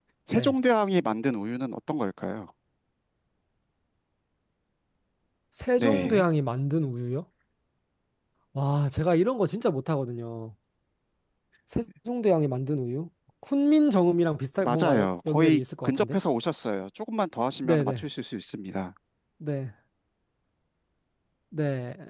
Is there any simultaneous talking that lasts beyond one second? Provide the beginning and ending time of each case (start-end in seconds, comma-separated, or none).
14.6-16.2